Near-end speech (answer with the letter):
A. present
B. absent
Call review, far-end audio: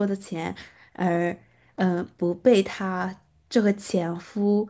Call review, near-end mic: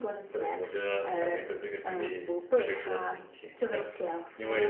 A